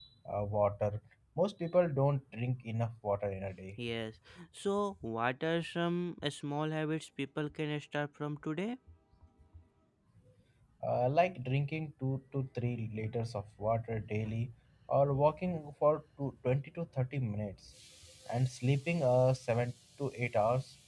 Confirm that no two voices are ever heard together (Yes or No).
Yes